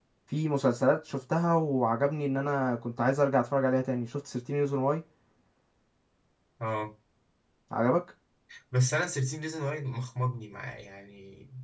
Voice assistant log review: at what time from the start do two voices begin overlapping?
none

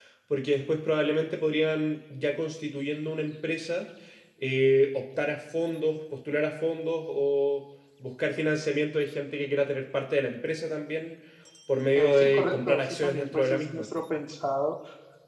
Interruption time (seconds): 11.9 s

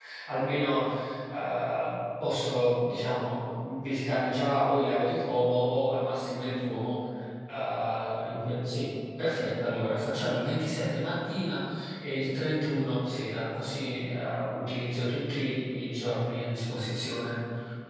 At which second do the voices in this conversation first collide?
none

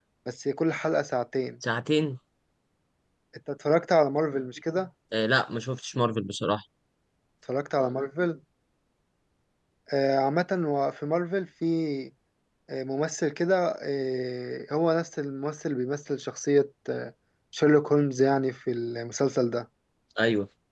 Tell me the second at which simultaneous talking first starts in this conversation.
none

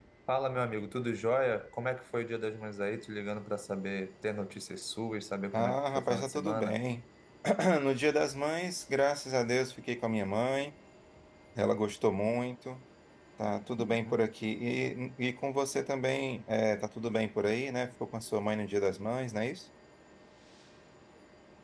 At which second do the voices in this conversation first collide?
5.5 s

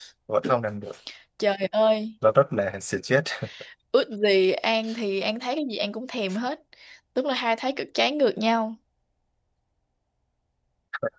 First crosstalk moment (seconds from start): none

